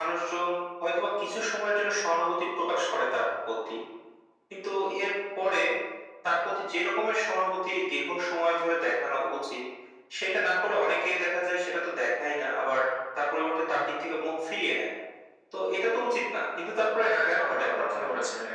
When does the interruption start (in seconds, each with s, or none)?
17.0 s